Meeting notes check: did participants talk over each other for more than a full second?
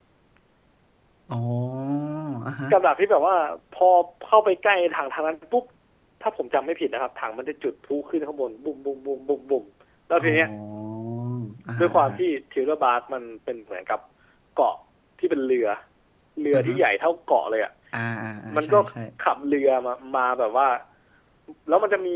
No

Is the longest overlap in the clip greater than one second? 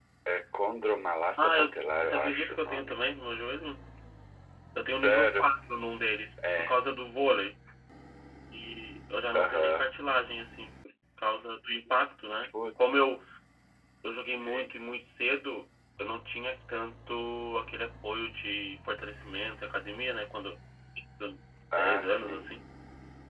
Yes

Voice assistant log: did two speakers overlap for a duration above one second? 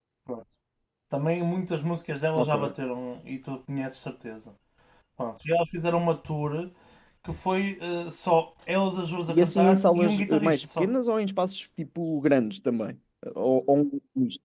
Yes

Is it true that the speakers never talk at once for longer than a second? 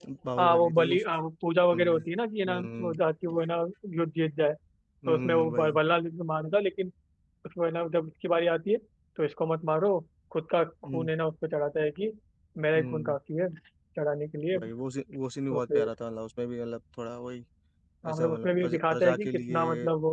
No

